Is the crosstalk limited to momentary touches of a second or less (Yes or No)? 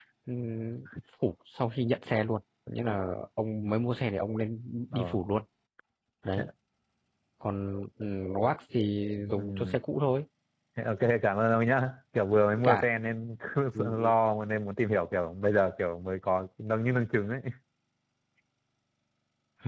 Yes